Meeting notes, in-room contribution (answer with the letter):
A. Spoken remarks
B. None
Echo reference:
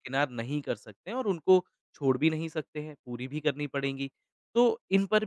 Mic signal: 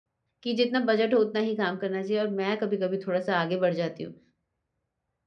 A